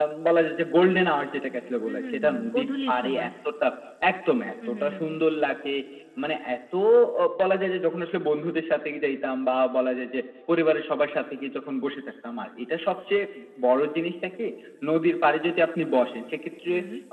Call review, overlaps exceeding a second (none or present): present